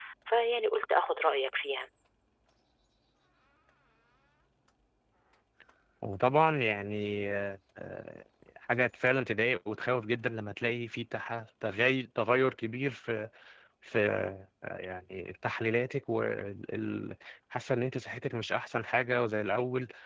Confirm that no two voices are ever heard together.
Yes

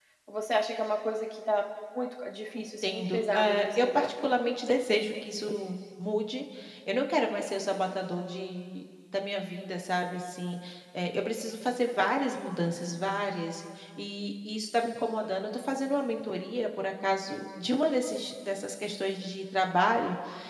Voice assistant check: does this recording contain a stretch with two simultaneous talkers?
Yes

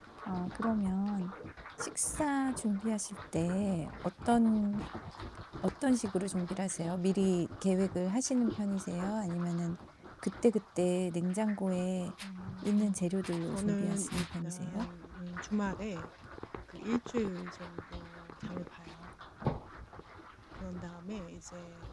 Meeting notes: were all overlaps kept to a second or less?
No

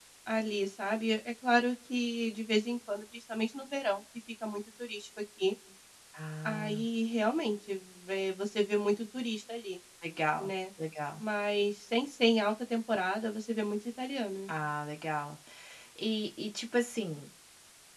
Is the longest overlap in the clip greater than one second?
No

